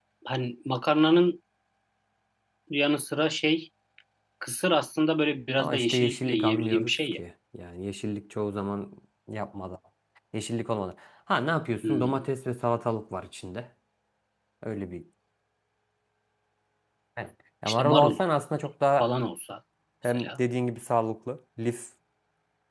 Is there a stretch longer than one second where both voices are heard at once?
Yes, from 5.6 s

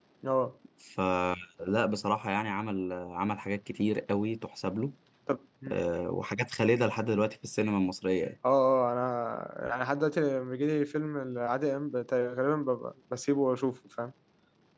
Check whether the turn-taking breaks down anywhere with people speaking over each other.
No

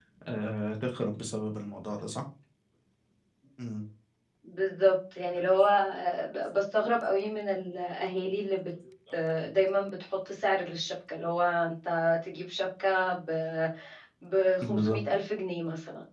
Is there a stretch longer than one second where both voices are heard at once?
No

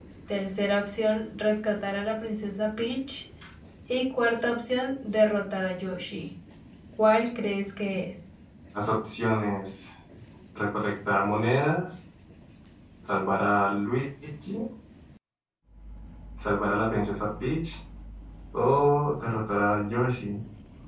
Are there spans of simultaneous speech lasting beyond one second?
No

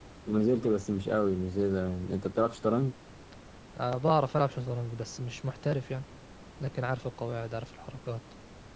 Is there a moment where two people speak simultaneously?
No

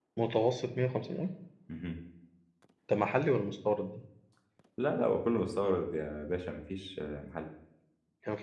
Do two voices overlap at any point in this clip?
No

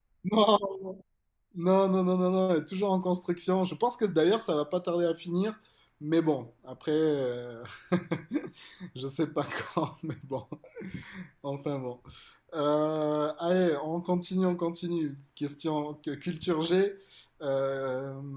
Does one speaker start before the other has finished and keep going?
No

